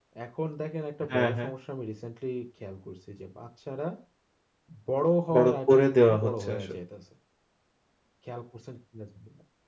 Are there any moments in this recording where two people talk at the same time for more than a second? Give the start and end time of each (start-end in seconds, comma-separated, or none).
5.3-6.8